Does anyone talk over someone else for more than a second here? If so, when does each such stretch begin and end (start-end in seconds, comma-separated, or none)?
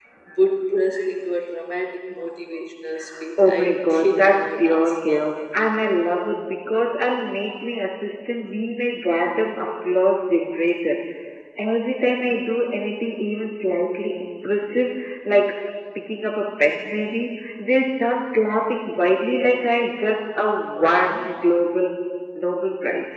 3.4-5.3